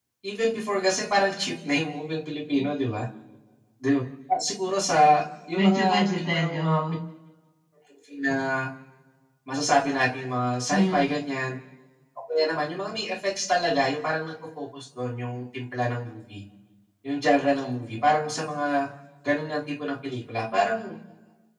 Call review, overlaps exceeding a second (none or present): present